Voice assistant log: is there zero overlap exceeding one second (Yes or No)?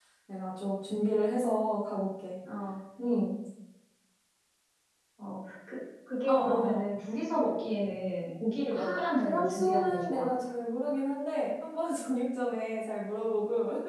No